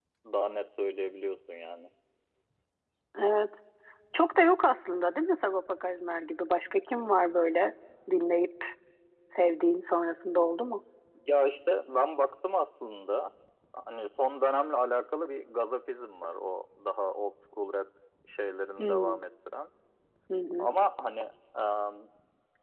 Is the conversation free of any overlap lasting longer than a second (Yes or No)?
Yes